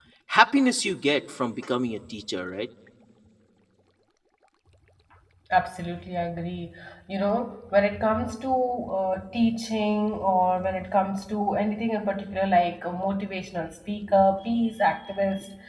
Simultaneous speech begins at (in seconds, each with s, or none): none